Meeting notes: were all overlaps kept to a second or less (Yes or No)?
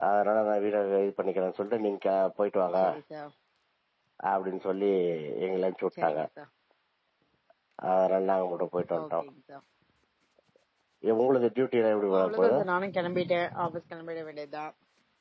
Yes